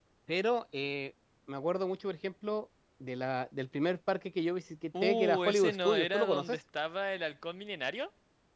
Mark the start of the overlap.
4.9 s

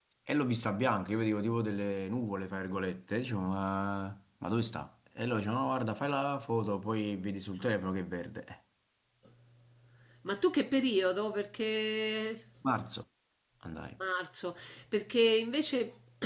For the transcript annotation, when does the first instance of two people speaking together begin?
none

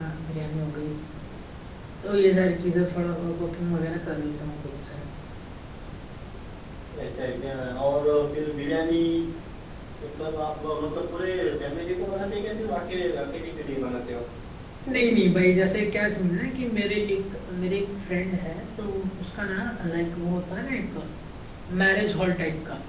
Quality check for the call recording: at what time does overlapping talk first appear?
none

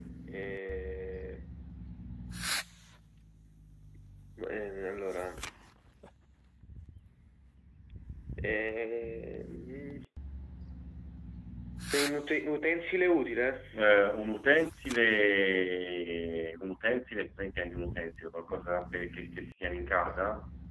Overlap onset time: none

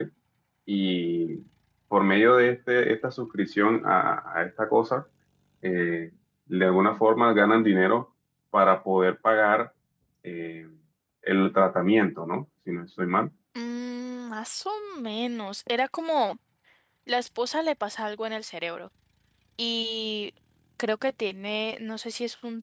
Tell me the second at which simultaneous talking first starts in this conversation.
none

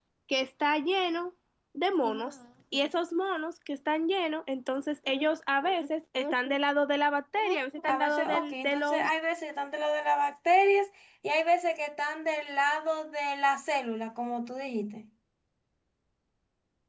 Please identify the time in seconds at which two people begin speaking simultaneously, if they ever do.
7.9 s

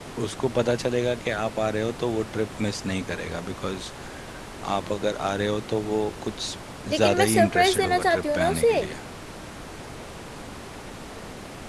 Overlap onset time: 6.9 s

